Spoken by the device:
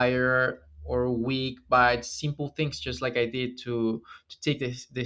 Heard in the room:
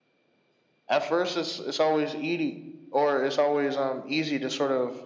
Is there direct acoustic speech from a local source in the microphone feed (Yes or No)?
Yes